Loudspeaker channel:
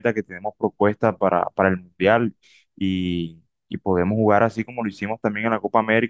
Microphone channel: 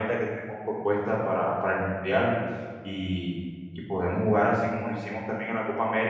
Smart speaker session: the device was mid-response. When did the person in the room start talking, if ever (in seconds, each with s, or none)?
none